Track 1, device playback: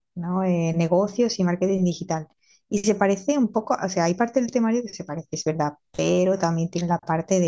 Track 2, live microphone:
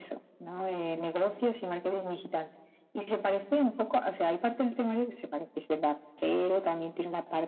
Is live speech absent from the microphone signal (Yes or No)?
Yes